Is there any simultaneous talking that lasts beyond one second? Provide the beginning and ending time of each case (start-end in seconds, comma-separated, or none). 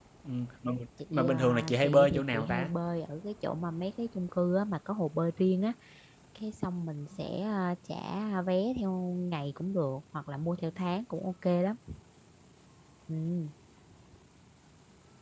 1.1-2.7